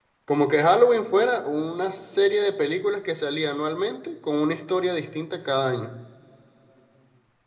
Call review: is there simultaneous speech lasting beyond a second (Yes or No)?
No